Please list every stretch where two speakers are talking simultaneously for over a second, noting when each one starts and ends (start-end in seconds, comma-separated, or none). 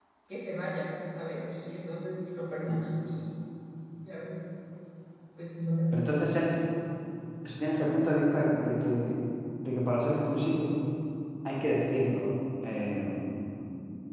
none